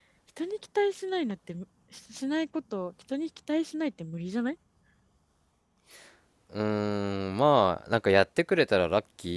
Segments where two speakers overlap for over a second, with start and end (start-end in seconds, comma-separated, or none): none